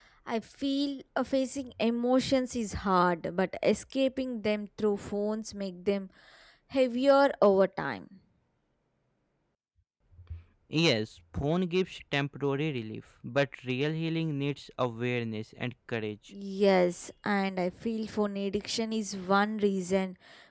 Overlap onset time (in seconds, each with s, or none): none